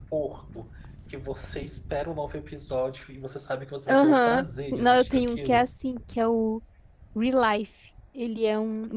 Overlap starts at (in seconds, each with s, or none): 3.9 s